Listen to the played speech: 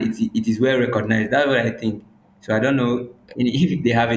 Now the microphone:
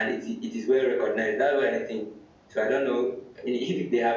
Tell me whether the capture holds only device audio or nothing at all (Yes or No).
Yes